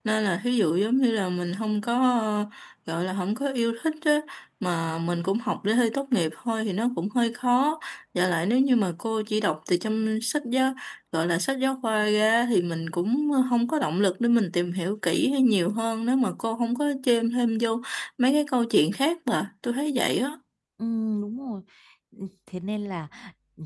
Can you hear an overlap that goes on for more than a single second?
No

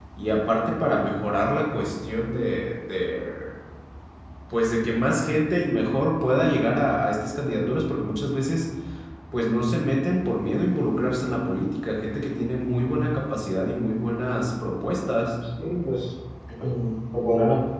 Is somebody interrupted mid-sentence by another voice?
No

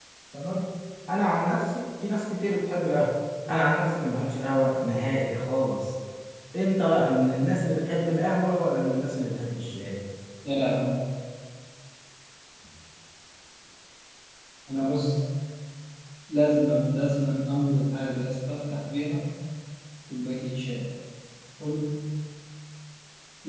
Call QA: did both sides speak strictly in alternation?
Yes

